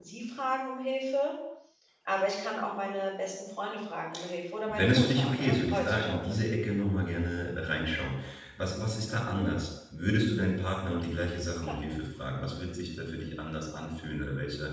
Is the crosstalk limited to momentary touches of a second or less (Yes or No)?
No